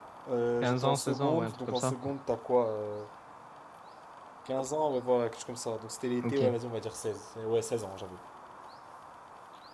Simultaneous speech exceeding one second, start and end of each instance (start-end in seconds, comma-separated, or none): 0.6-1.9